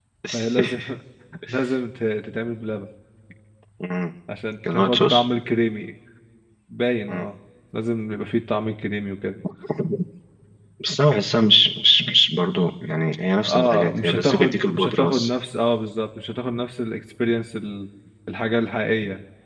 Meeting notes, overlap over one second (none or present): present